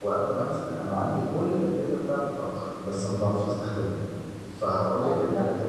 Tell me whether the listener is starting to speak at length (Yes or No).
No